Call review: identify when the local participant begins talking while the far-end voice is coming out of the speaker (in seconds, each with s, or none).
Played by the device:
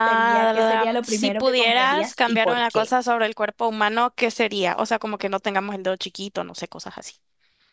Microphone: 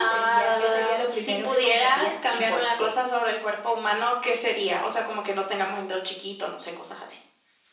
none